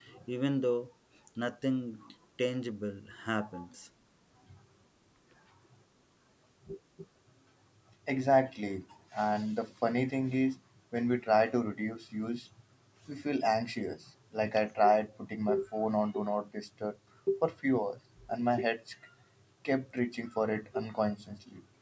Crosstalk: none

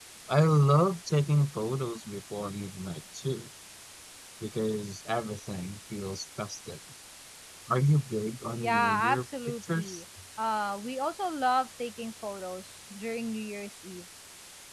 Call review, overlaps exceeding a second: present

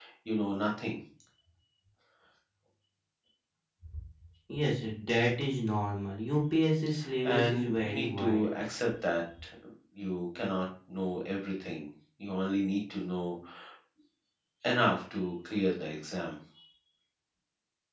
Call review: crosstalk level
present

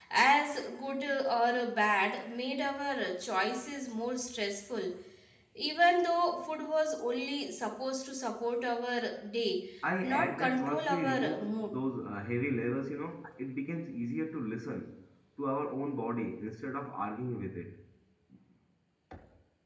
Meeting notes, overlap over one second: present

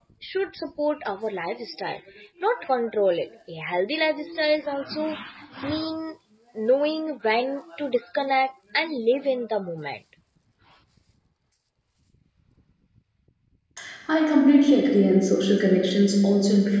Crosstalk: none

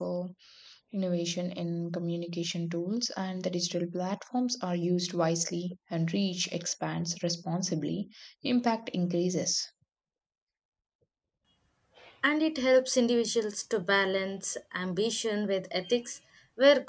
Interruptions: none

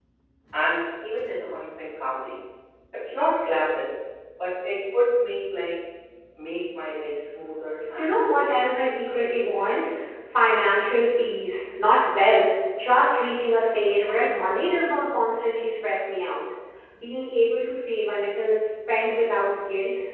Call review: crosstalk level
present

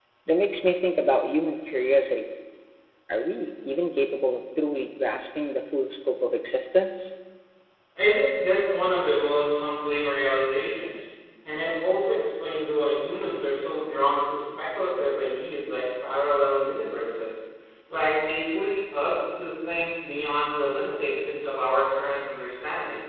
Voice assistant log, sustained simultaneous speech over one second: none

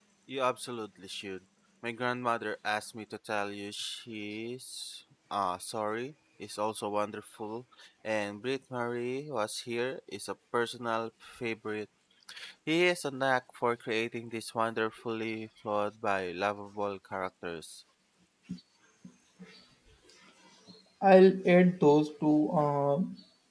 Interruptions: none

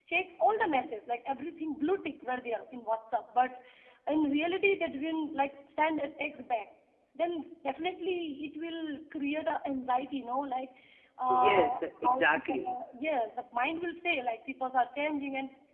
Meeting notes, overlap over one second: present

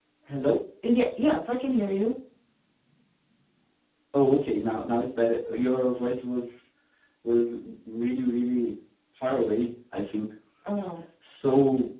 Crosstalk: none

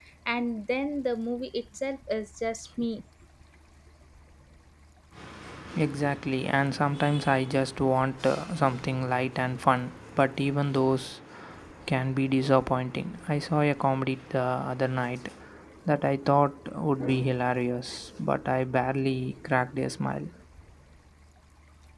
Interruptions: none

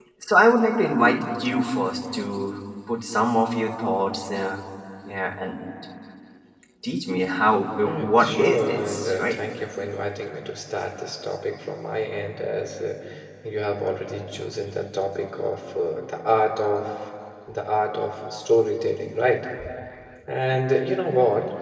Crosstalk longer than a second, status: present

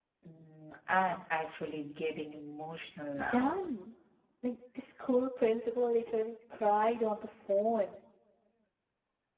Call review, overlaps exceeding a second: none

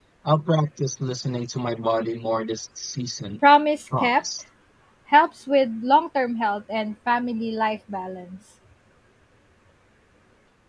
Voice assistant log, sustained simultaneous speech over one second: none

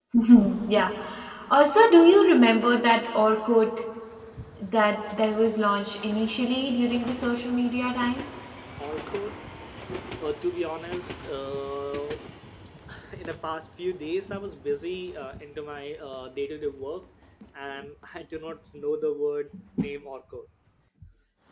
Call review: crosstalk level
none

